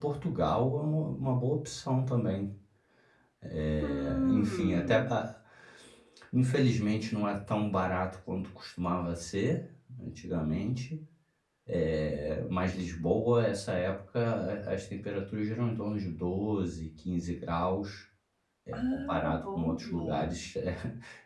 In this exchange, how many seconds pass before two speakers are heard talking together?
3.8 s

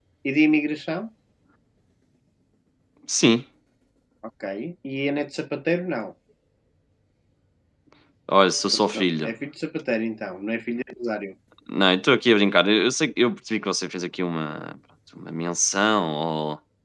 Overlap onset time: none

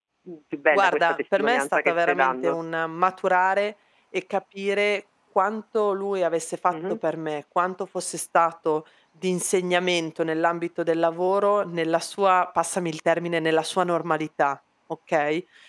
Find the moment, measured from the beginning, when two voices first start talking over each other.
0.7 s

